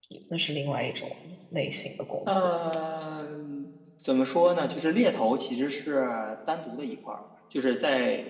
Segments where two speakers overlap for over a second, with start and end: none

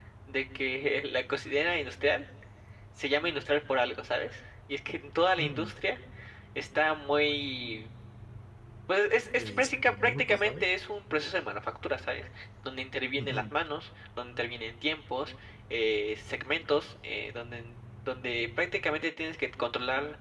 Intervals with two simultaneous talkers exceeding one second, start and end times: 9.4-10.7

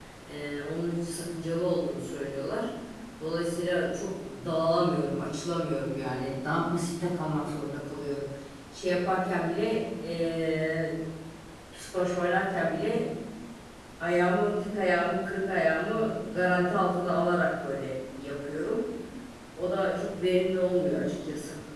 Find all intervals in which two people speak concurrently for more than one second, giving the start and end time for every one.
none

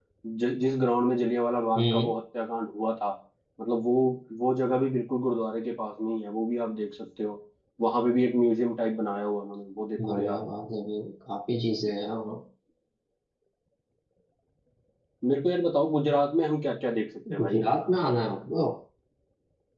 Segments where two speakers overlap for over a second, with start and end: none

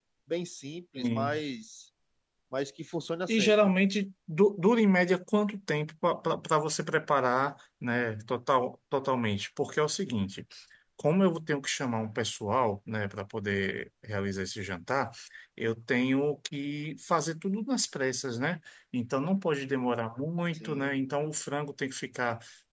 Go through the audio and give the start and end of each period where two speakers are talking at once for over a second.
none

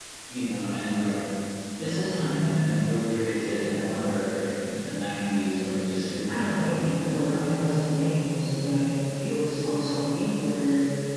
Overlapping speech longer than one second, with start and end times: 6.3-7.5

